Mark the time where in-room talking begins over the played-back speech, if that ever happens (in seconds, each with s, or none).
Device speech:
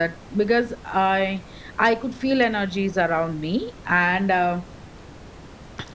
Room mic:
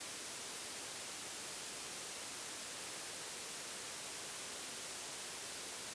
none